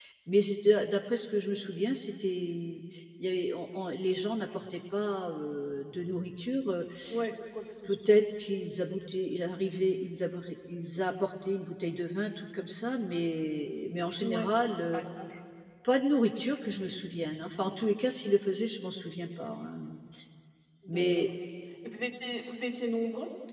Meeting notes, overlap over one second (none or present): none